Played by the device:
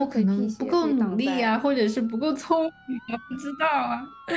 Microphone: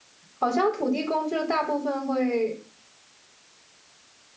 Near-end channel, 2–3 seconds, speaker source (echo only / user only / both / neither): user only